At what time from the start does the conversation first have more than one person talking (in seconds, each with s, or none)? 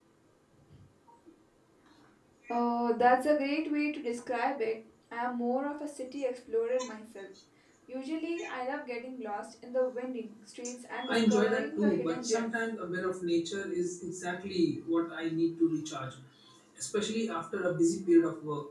11.0 s